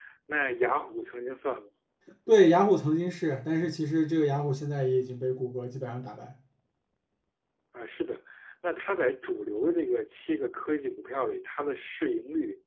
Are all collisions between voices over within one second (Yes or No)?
Yes